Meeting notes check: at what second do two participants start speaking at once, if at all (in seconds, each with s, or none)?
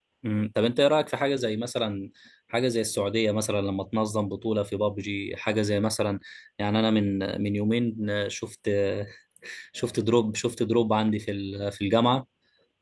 none